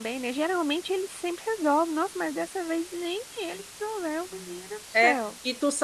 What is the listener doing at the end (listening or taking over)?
taking over